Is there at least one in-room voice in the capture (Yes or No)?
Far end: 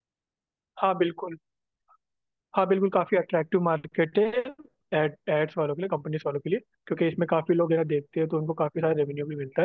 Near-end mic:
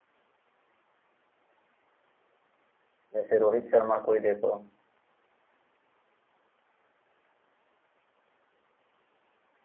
Yes